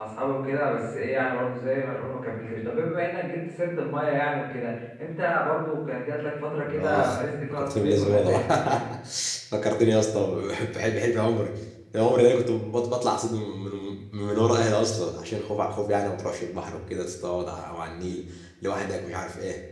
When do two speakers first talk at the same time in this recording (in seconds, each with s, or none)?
6.7 s